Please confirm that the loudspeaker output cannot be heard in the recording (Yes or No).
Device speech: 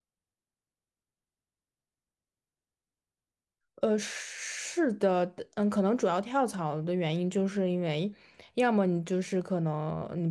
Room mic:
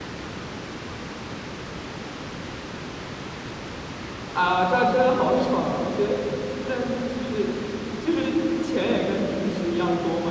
Yes